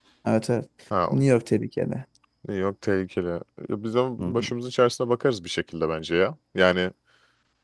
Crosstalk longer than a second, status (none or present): none